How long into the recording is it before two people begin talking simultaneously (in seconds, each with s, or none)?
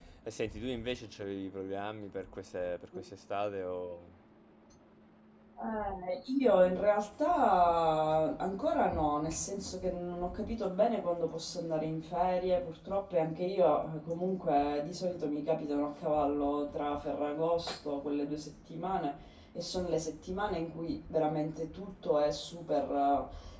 none